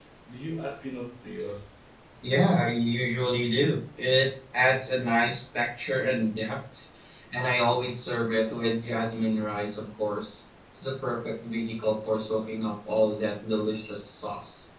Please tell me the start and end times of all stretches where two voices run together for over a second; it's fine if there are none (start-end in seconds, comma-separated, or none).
none